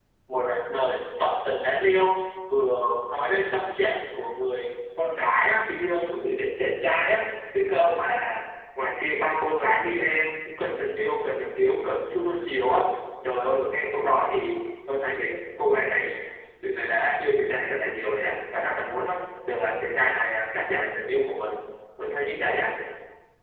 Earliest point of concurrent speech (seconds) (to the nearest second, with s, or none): none